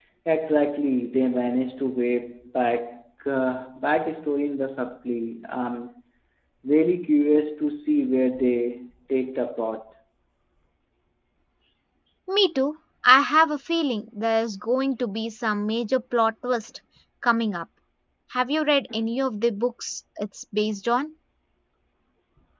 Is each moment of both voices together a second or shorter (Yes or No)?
Yes